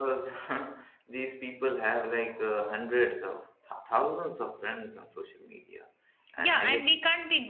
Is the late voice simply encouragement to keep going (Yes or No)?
No